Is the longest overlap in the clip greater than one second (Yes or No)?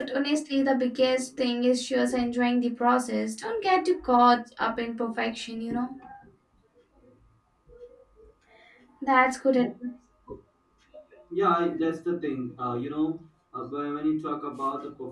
No